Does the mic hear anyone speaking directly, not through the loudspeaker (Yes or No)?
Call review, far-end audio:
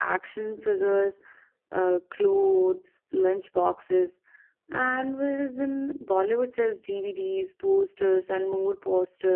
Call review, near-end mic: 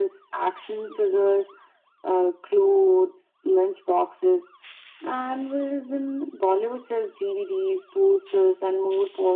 No